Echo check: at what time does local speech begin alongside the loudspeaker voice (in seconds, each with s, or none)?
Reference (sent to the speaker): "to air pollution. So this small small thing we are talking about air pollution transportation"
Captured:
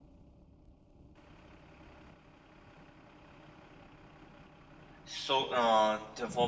5.0 s